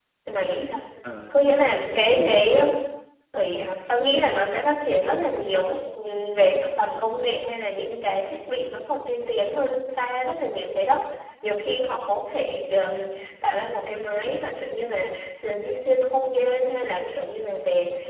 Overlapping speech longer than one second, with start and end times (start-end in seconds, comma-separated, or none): 1.3-2.5